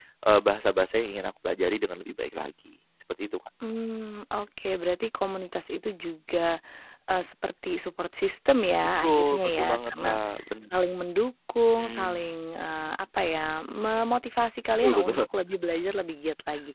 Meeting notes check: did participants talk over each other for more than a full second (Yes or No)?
Yes